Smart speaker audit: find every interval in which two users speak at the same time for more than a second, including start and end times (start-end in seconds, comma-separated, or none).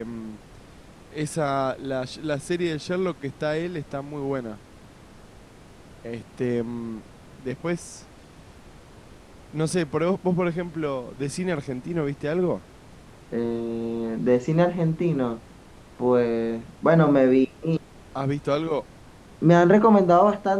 none